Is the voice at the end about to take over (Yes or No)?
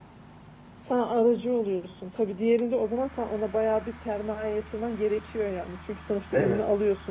No